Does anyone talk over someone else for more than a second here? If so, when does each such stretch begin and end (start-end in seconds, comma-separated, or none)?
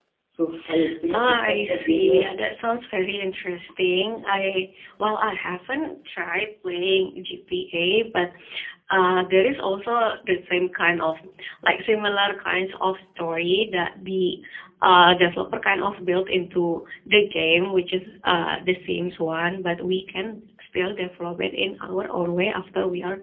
1.1-2.4